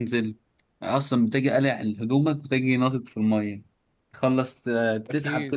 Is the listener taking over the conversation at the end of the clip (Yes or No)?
No